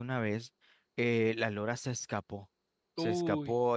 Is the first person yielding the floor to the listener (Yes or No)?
No